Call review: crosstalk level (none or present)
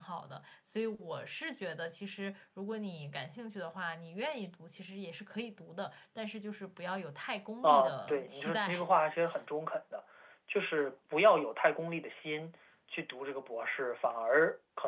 present